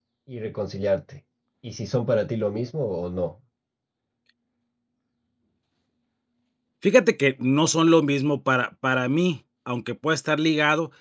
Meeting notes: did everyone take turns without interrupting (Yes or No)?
Yes